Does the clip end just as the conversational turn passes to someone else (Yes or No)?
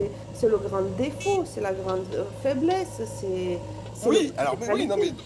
Yes